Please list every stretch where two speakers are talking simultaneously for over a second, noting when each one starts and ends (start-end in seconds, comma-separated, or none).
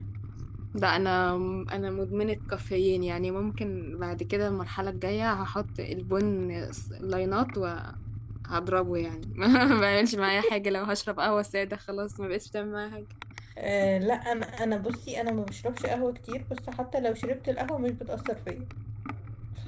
none